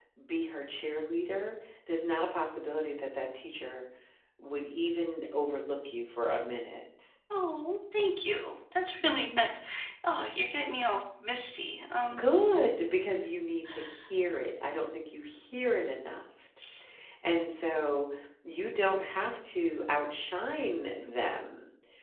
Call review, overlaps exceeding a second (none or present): none